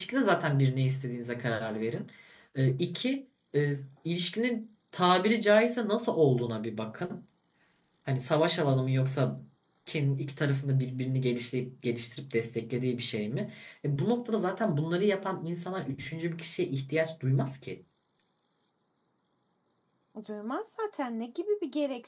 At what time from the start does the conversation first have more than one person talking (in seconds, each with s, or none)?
none